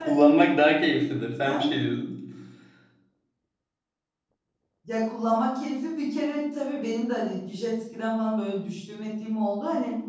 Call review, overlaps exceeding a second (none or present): none